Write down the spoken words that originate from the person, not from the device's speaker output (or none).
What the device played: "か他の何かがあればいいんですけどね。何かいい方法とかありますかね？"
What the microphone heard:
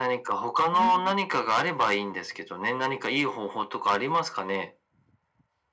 うーん。